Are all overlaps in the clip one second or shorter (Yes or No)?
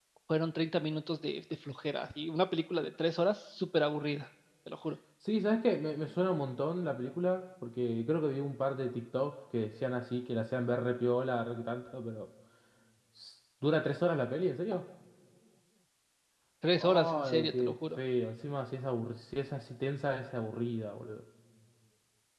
No